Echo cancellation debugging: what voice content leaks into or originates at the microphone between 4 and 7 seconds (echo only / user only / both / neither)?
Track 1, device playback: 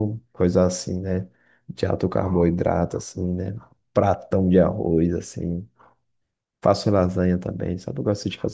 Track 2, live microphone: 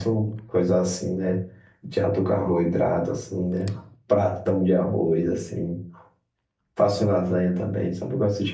echo only